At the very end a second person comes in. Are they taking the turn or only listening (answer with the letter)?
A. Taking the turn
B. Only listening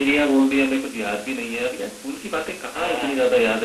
B